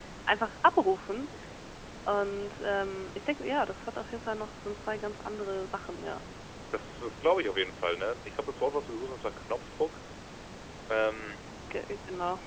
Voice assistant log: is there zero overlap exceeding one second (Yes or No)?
Yes